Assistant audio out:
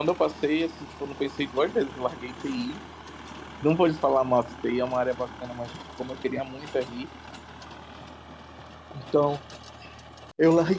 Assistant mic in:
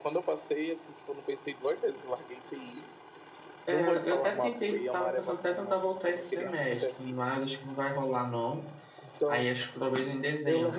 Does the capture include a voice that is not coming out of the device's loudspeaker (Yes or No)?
Yes